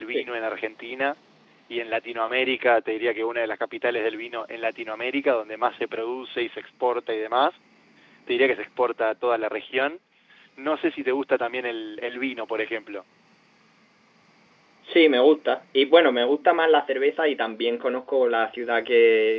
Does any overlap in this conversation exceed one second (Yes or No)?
No